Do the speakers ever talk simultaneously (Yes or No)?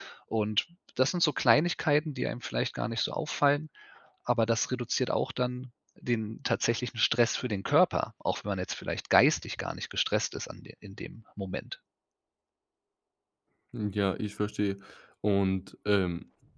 No